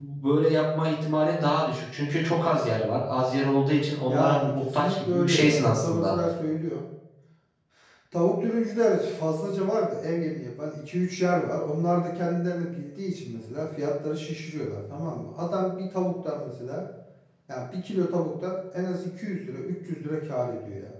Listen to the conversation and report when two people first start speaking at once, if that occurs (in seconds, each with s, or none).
4.1 s